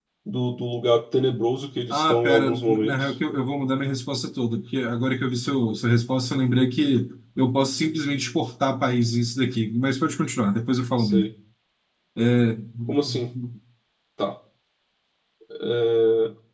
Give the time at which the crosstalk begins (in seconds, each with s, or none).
1.9 s